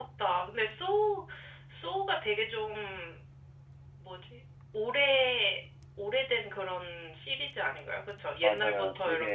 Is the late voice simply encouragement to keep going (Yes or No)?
No